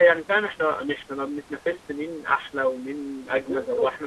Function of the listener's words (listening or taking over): listening